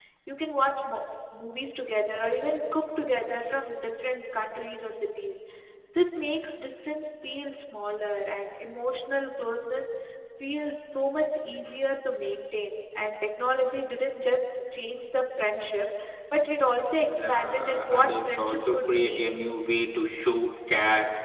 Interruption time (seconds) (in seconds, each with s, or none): 17.1 s